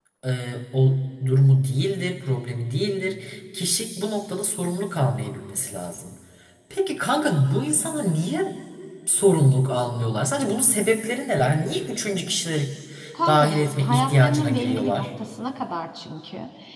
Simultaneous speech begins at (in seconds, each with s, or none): 13.2 s